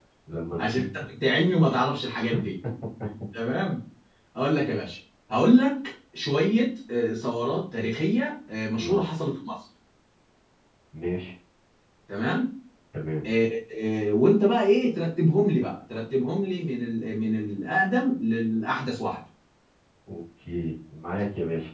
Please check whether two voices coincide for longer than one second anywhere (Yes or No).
No